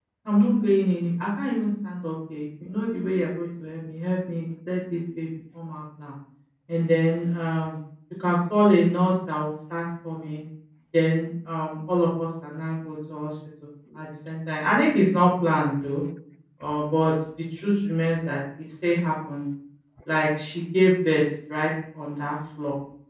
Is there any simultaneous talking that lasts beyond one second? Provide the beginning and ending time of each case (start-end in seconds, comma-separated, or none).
none